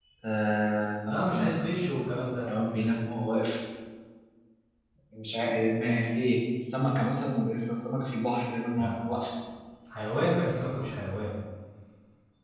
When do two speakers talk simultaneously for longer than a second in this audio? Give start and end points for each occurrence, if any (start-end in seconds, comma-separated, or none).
none